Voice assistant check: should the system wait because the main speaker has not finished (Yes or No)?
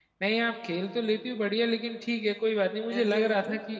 Yes